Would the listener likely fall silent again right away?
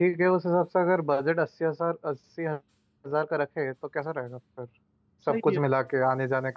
Yes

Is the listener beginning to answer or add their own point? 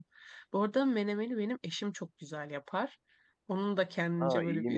No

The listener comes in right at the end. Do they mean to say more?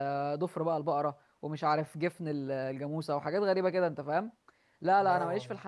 No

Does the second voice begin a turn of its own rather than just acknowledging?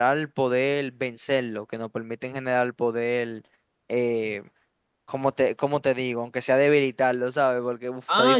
Yes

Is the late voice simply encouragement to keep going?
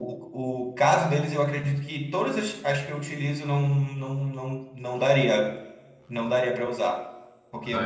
Yes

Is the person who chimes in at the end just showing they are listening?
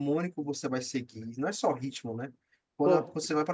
Yes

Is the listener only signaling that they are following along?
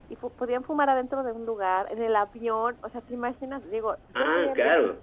Yes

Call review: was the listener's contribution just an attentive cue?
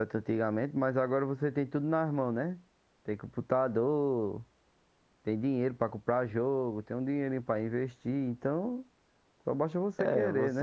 No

